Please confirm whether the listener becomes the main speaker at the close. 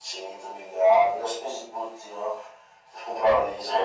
No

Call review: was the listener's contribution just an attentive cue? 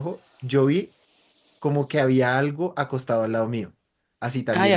Yes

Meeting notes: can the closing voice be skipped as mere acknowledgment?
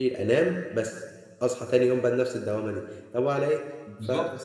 Yes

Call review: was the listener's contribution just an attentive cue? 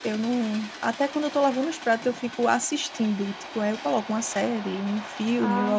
Yes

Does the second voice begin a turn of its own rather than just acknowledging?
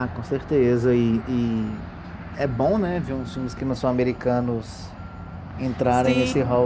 Yes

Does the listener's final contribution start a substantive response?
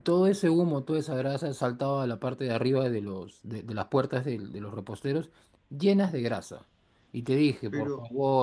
No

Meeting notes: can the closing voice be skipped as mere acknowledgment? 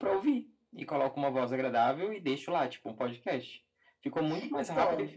Yes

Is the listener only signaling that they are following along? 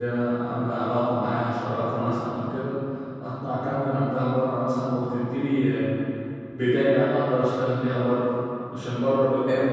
Yes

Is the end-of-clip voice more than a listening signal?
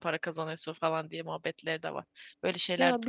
Yes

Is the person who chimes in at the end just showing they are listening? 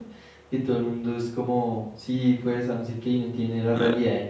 Yes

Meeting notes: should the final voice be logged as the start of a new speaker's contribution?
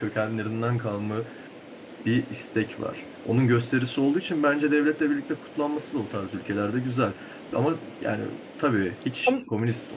No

